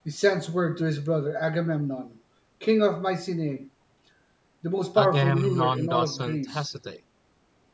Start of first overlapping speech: 5.0 s

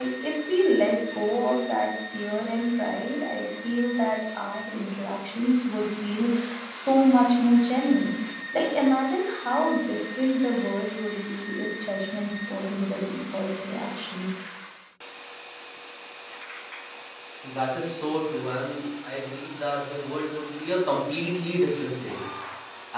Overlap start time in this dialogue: none

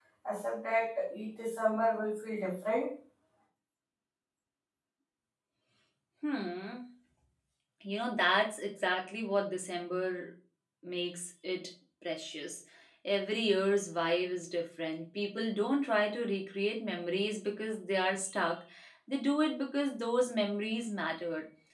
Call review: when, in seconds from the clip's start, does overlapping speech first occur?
none

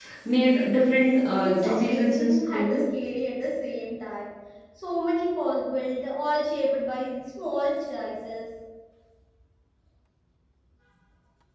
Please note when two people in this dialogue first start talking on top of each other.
1.4 s

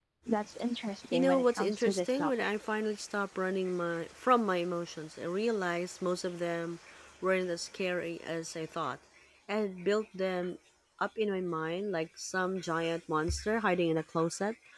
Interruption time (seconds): 1.1 s

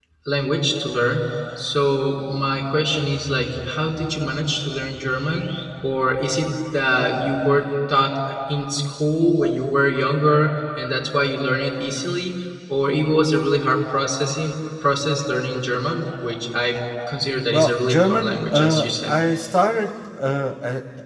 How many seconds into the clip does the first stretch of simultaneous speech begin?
17.5 s

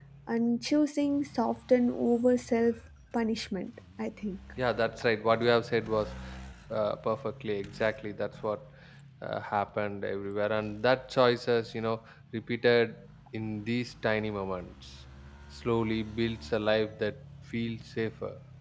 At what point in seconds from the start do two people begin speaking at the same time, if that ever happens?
none

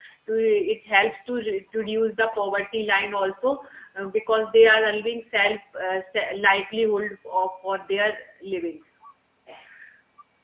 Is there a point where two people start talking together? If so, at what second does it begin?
none

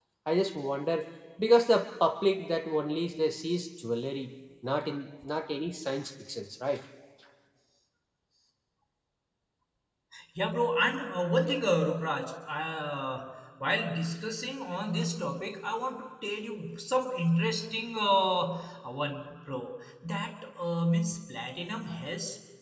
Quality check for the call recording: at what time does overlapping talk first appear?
none

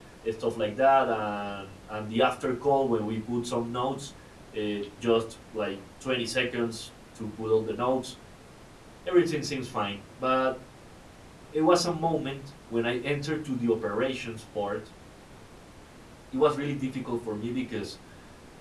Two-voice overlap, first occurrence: none

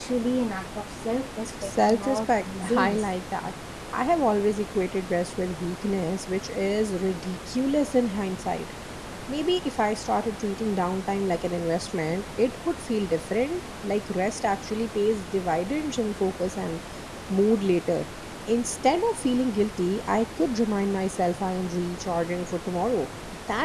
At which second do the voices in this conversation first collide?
1.6 s

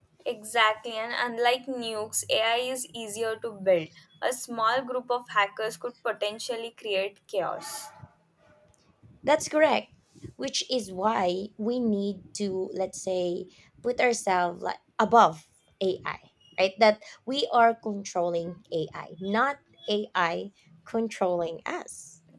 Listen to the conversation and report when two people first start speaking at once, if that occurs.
none

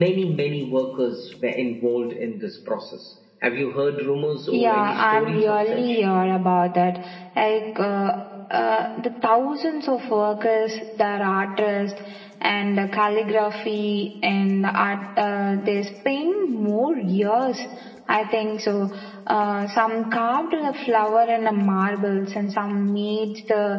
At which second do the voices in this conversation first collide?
4.5 s

